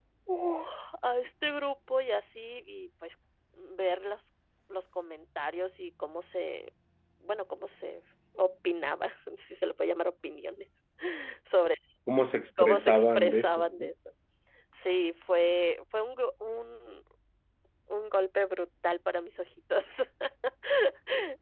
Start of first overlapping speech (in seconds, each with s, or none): 12.6 s